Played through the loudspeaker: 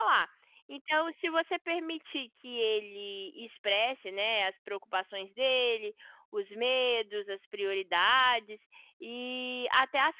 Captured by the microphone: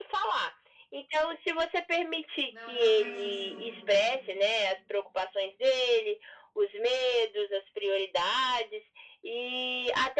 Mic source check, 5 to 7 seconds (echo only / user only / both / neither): echo only